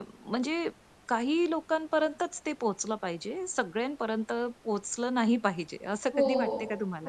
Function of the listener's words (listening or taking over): taking over